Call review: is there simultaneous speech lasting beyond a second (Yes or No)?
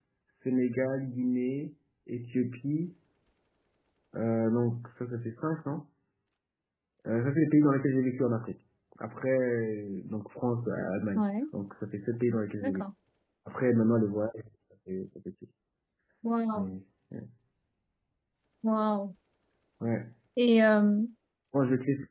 No